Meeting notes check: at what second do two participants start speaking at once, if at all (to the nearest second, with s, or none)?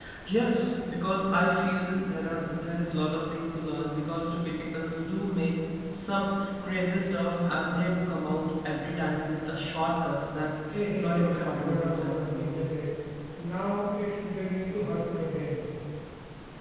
11 s